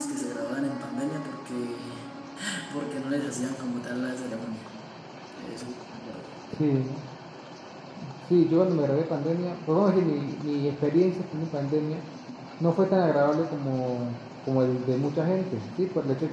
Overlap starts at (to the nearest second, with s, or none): none